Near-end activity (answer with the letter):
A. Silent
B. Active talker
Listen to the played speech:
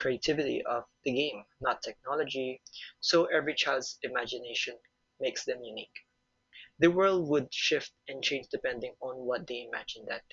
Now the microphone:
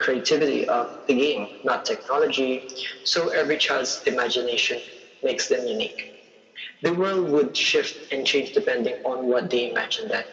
A